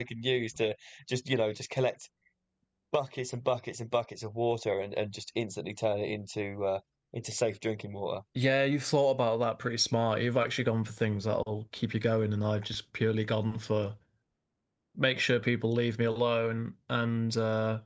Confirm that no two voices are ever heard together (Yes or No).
Yes